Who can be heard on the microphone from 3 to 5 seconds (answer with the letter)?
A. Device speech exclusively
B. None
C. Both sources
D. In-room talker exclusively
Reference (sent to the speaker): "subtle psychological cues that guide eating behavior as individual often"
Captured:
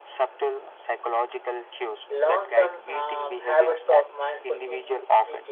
C